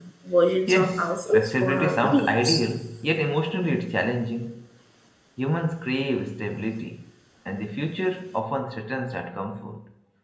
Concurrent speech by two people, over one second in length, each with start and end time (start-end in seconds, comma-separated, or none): 0.7-2.6